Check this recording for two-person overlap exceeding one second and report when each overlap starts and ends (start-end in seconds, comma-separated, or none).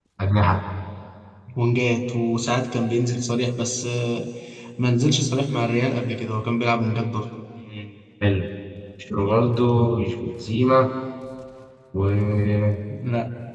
none